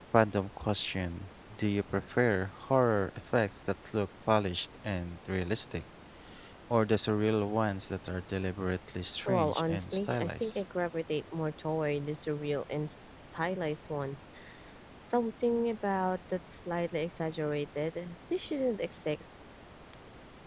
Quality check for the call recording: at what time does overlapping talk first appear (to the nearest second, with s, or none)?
9 s